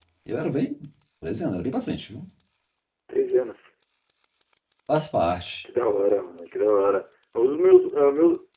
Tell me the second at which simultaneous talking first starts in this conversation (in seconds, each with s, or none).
none